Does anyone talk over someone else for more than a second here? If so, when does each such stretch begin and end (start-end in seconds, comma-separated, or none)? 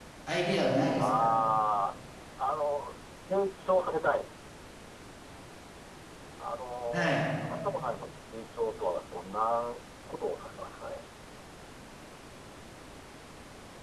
none